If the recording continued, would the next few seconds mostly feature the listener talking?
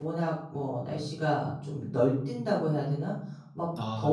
No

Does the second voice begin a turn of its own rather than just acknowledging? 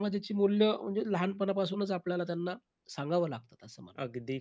Yes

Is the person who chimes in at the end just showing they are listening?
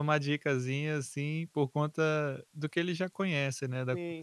No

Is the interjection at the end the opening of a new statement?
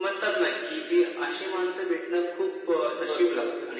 No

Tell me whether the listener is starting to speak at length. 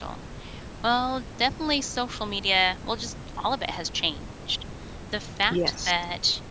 No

